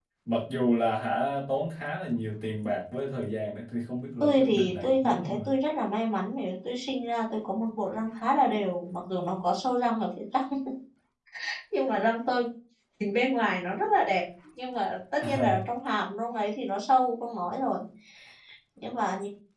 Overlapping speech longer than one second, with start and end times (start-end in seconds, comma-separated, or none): 4.2-5.5